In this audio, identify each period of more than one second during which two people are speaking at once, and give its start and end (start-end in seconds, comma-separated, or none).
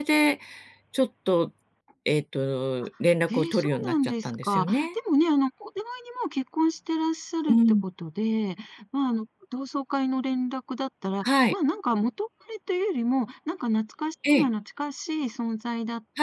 3.3-4.9